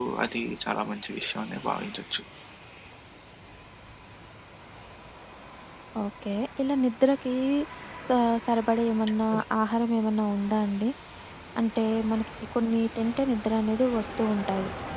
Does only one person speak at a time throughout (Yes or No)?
Yes